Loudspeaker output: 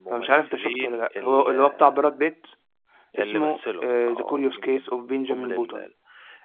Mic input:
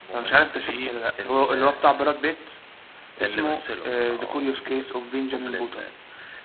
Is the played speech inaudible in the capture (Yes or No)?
No